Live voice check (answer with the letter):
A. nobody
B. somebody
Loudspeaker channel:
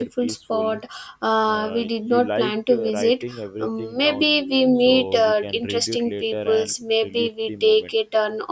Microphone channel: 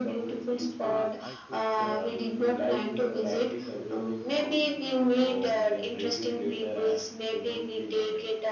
B